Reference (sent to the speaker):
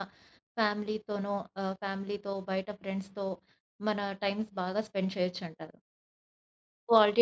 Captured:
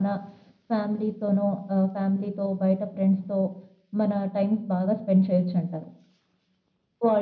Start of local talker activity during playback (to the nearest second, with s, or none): none